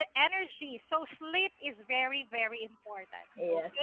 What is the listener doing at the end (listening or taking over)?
taking over